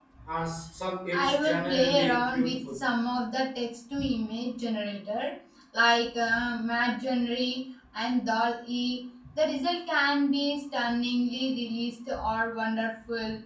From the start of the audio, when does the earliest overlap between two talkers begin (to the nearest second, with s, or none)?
1 s